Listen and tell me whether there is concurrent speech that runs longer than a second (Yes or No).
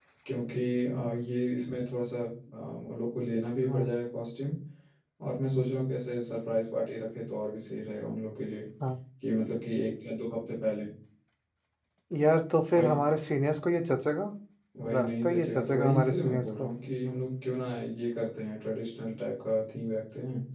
Yes